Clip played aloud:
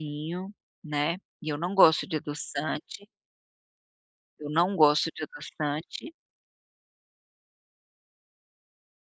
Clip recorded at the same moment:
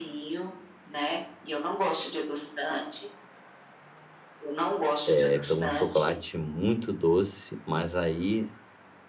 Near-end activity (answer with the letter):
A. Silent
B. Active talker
B